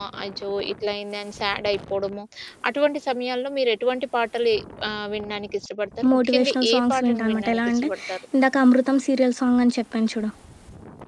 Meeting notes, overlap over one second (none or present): present